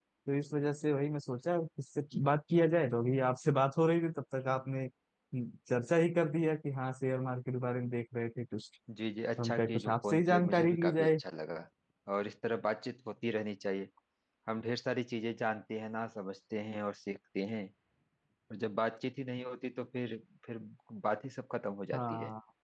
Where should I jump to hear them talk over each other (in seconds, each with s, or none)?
9.4 s